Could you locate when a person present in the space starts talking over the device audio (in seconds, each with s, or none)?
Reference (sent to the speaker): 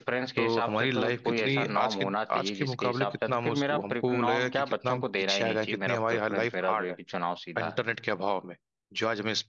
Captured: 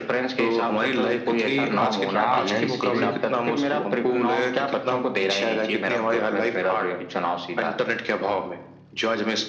1.7 s